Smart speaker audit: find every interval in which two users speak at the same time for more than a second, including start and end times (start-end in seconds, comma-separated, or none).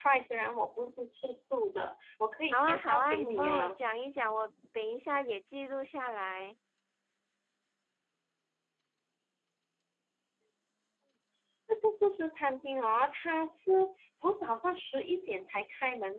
2.5-3.8